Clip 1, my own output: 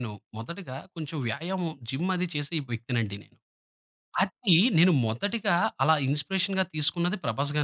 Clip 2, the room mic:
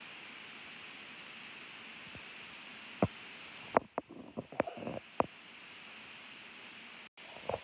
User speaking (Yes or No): No